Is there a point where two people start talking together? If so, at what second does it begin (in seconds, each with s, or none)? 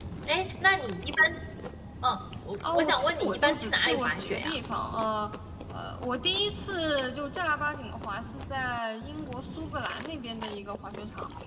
2.7 s